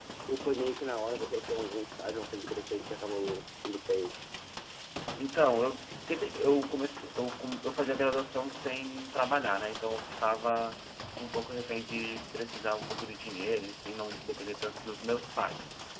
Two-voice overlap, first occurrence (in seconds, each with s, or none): none